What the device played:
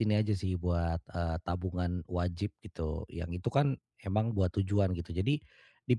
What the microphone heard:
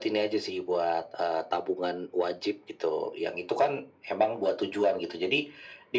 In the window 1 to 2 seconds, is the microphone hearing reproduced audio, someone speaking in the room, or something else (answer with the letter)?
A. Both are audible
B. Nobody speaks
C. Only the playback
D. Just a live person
C